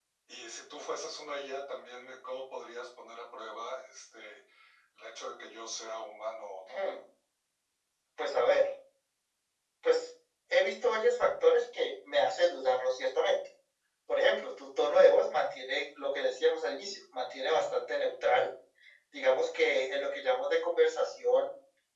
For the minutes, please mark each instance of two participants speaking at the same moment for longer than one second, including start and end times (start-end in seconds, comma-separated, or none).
none